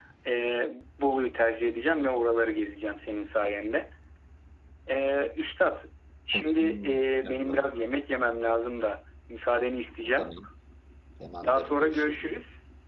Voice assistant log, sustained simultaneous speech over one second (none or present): present